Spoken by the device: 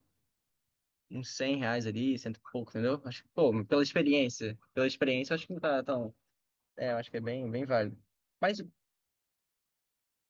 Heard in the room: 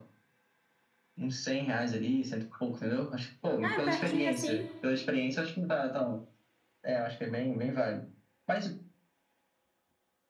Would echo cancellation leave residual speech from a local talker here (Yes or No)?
Yes